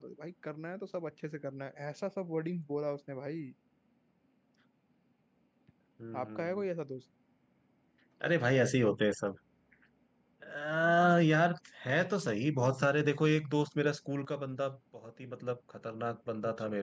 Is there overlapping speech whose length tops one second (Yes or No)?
No